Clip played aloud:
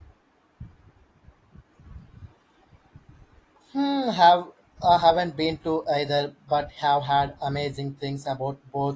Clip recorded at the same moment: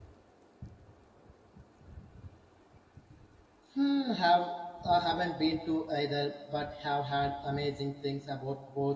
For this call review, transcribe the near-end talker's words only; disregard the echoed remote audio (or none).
none